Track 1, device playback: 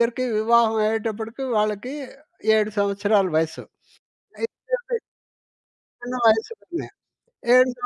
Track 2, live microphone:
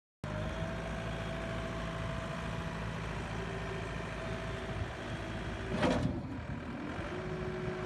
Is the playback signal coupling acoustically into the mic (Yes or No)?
No